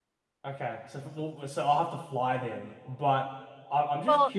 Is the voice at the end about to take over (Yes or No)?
Yes